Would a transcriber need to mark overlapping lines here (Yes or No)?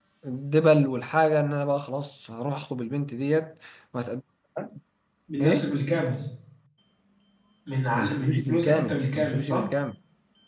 Yes